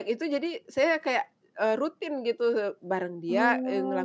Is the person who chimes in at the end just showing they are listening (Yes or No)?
Yes